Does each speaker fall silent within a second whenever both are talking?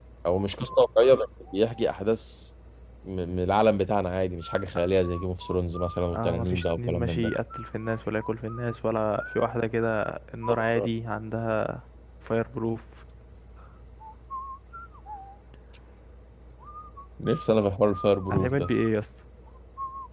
No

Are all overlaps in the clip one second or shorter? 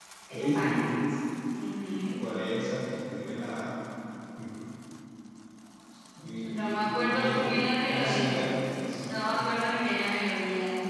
No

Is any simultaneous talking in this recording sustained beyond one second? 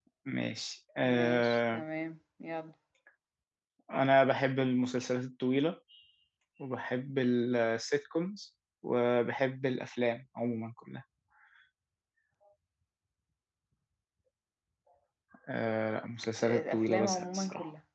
Yes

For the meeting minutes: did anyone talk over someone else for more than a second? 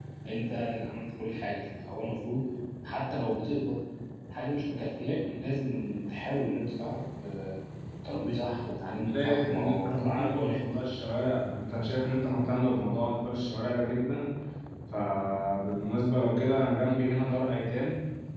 Yes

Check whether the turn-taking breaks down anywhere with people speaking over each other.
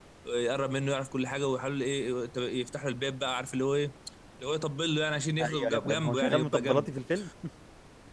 Yes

